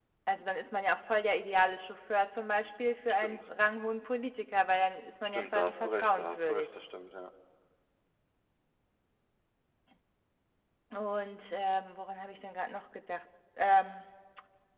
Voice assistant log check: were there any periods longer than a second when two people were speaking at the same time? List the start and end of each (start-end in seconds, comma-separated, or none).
5.2-6.7